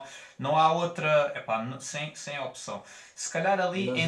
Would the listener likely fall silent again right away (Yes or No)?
Yes